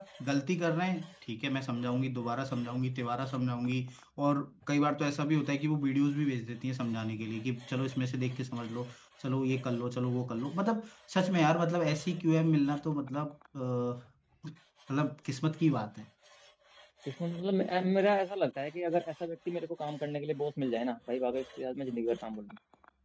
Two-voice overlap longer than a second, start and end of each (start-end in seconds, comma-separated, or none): none